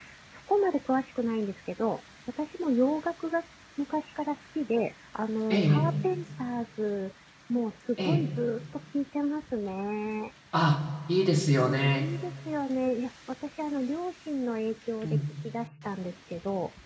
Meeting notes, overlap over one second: none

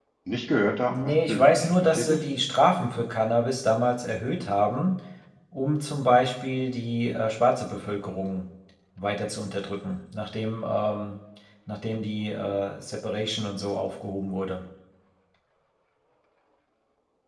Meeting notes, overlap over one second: present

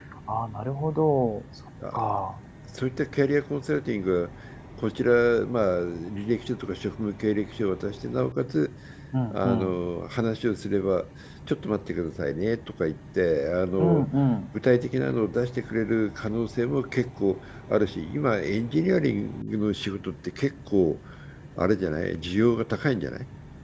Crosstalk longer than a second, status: none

